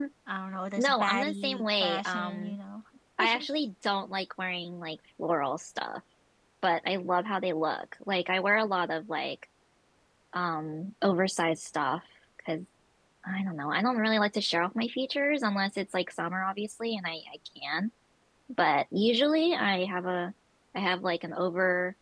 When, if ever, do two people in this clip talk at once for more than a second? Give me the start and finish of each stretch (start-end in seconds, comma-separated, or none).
0.8-2.6